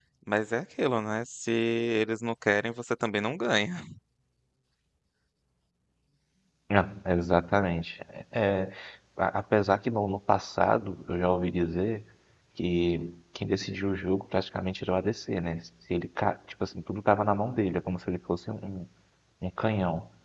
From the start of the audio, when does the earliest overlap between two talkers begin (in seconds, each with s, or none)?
none